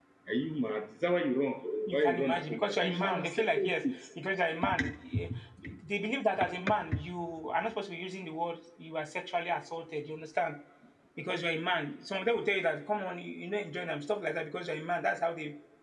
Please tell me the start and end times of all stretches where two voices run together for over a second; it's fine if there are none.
1.9-4.0

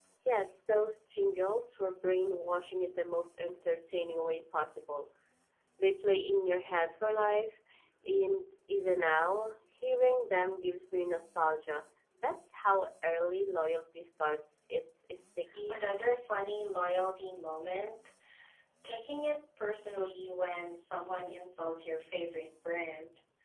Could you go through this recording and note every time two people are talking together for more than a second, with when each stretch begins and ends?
none

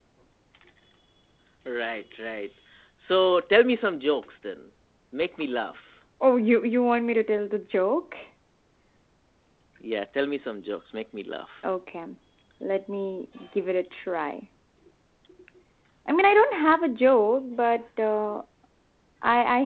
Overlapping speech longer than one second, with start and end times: none

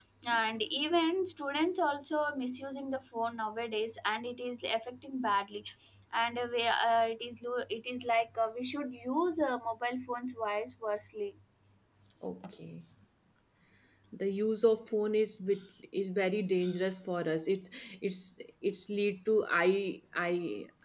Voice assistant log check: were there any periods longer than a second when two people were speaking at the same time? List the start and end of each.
none

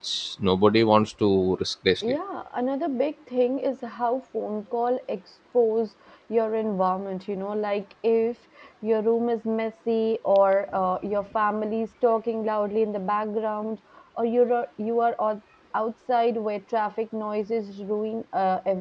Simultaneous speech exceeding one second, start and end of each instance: none

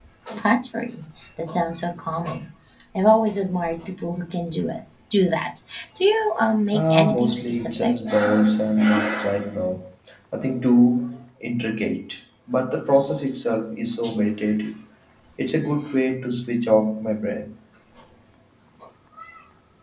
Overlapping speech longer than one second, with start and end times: 6.7-7.9

